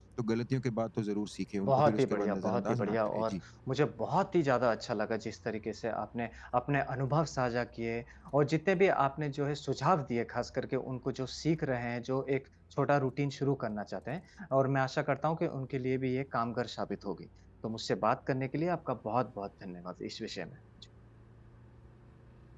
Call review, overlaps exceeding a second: present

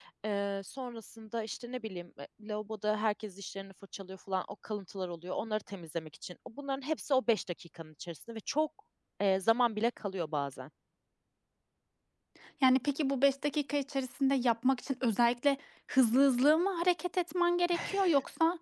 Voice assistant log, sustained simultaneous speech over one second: none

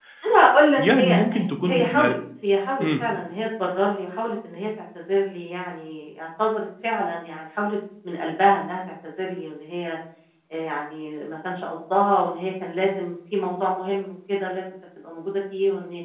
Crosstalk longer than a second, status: present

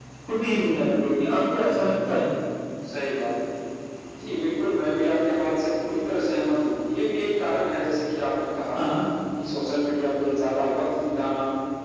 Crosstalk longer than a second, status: none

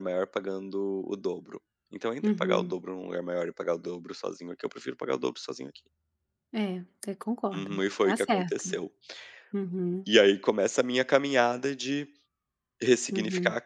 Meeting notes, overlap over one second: present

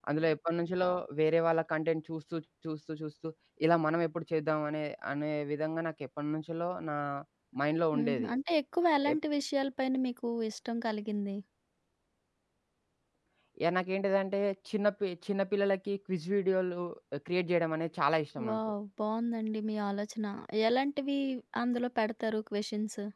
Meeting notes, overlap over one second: none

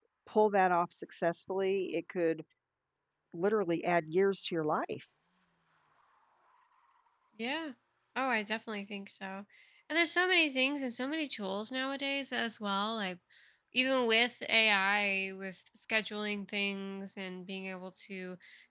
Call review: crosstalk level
none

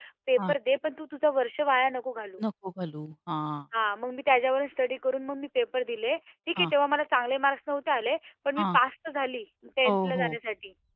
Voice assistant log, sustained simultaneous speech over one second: none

